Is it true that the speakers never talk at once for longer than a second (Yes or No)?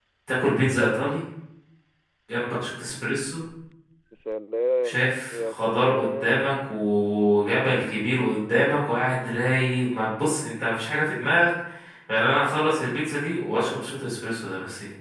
No